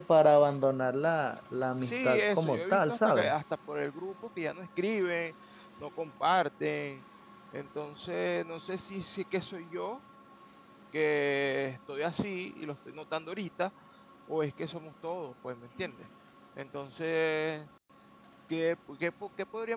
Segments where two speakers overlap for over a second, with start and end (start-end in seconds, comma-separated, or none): 1.8-3.3